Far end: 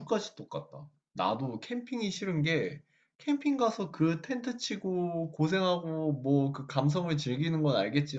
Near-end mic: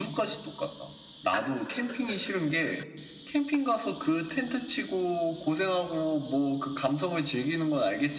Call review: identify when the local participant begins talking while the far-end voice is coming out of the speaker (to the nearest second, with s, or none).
none